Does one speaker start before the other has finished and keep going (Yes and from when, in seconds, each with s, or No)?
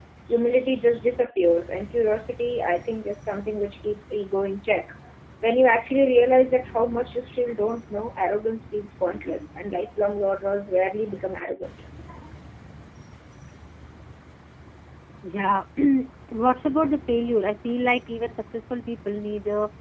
No